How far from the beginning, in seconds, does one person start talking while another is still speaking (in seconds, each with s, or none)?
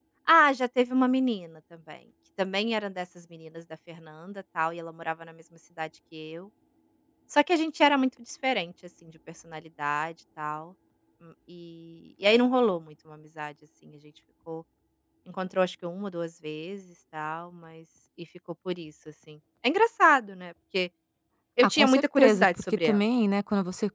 21.6 s